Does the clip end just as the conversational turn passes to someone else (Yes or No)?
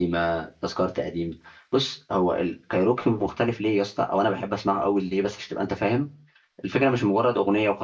No